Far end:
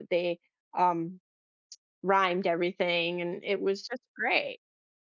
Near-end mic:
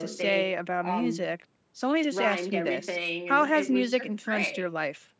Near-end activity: present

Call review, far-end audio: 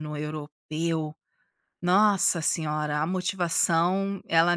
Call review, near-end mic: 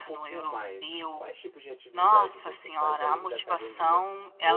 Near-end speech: present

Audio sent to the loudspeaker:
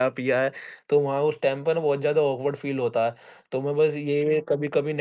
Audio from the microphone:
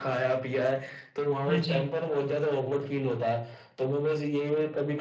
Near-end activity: present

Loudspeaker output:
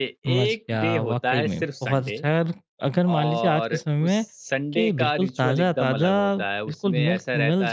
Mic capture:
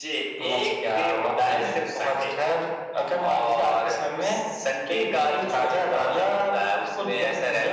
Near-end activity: none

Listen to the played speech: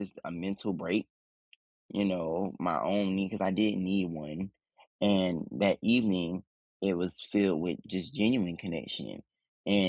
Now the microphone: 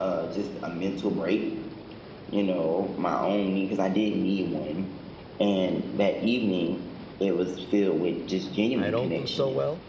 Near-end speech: present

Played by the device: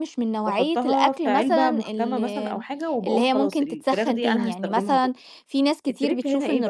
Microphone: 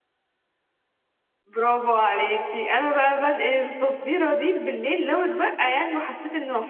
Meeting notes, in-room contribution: present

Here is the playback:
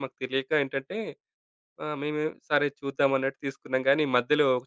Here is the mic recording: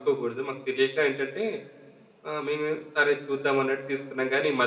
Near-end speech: none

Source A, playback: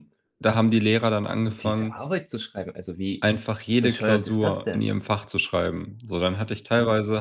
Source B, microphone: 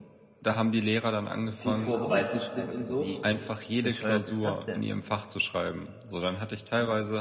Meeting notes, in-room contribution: present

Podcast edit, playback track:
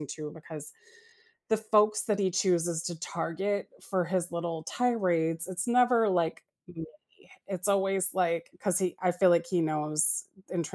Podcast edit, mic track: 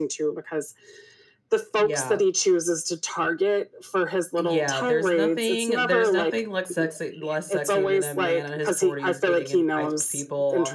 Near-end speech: present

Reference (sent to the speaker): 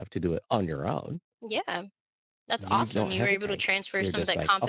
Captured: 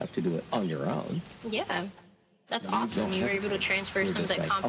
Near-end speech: none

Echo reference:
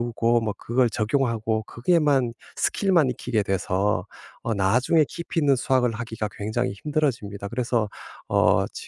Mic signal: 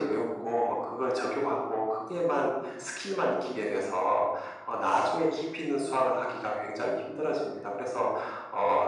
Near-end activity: none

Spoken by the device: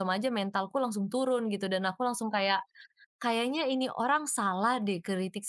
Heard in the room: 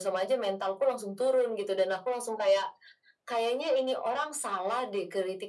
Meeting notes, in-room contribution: none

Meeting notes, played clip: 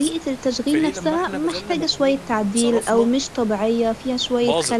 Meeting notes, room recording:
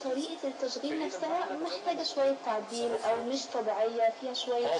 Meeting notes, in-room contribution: none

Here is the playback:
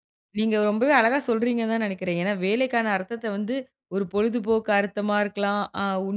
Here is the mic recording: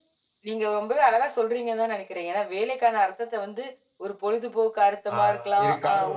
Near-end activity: present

